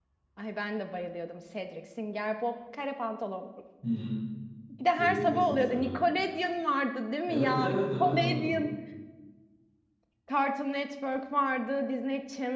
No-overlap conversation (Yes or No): No